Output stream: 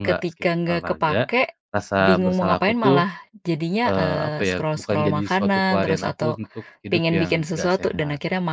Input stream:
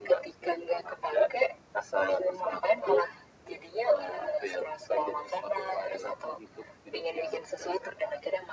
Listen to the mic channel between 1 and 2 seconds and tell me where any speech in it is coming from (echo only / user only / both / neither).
echo only